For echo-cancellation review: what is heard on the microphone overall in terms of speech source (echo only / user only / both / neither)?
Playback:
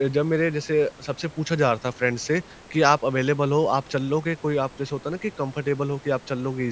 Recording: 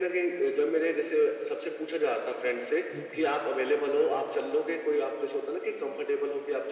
both